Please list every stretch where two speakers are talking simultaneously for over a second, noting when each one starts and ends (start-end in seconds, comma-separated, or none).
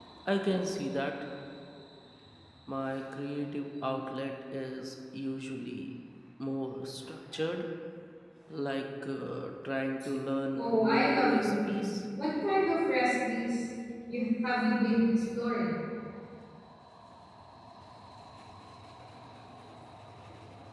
10.6-11.9